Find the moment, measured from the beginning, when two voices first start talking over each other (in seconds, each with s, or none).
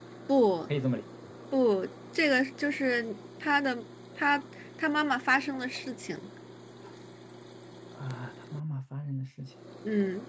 none